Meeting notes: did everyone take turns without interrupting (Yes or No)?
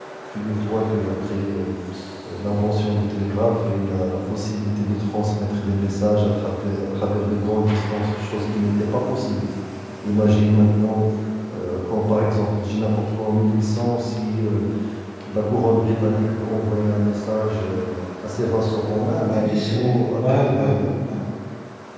No